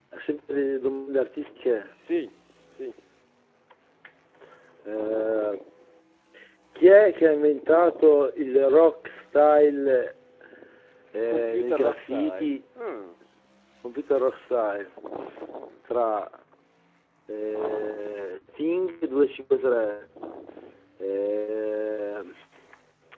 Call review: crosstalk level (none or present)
present